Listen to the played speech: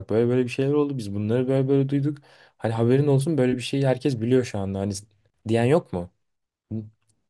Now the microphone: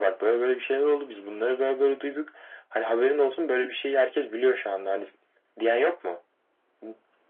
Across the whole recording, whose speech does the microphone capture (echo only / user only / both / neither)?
echo only